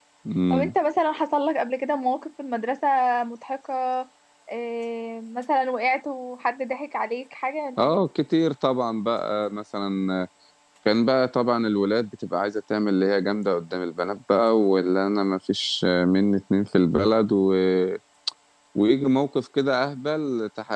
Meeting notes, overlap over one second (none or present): none